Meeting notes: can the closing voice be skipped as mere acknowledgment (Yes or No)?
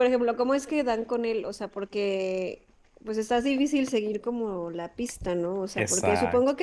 Yes